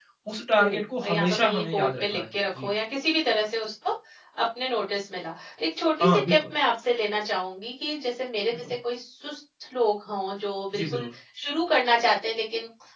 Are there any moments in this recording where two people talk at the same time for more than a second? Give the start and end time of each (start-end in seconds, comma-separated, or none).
1.0-2.7